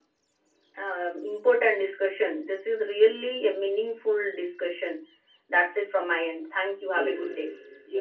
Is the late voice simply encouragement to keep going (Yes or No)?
No